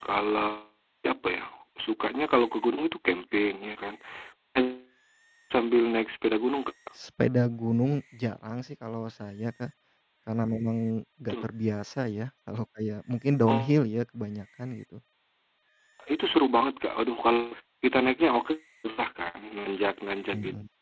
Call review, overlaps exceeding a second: none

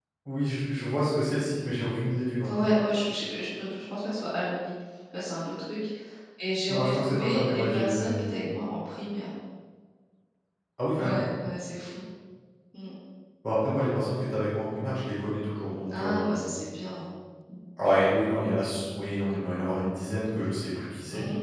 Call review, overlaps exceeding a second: present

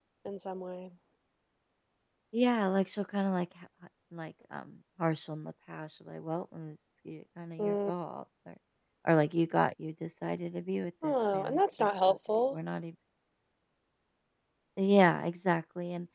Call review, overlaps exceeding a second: present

